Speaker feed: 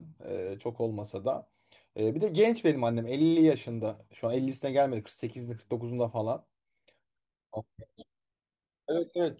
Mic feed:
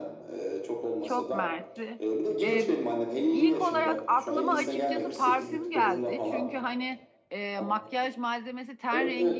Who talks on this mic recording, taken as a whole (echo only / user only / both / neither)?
both